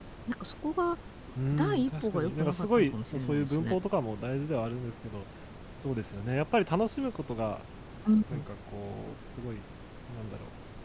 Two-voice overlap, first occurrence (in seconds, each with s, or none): 1.5 s